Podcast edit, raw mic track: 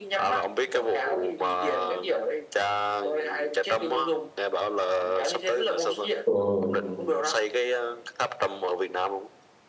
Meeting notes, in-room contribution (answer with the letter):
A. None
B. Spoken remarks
B